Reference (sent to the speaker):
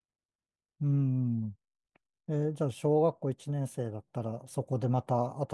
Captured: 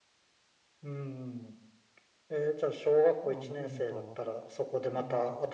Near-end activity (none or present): present